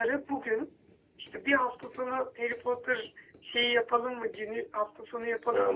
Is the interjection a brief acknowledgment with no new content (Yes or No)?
Yes